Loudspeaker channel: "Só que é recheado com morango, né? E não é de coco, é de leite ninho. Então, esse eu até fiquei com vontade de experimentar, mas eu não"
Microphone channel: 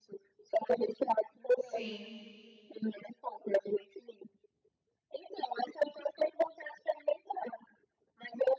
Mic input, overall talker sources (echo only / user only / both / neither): both